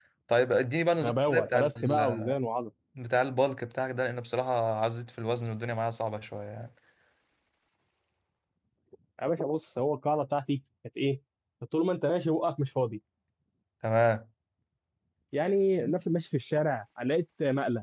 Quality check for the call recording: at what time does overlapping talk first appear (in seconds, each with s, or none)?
1.0 s